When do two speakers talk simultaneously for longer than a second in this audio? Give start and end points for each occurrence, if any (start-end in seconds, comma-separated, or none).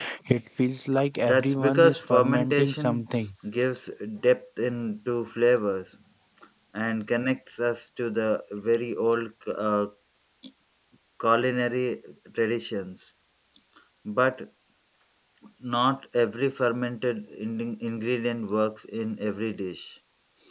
1.2-3.0